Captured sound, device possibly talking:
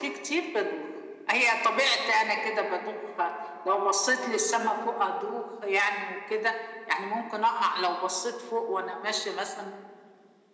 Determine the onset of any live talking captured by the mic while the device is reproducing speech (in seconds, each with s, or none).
none